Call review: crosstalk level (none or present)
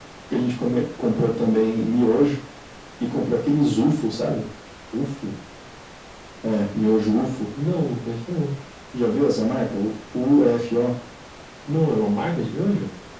none